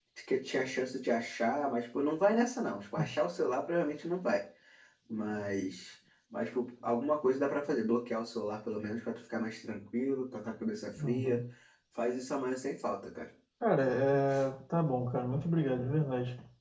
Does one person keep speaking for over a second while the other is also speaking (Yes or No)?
No